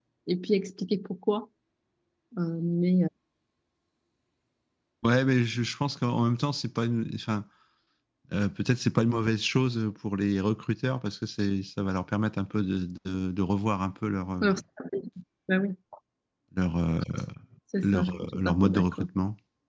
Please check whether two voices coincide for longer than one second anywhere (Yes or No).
Yes